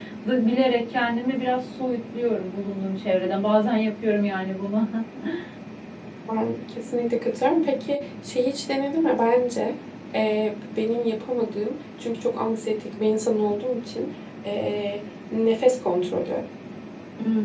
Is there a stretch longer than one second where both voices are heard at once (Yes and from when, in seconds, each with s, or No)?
No